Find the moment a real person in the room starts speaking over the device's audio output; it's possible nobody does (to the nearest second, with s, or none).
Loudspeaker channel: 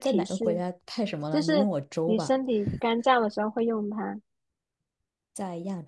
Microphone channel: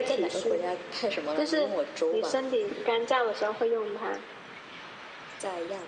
none